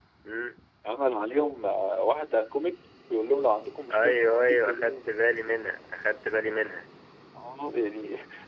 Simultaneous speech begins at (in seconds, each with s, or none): 3.9 s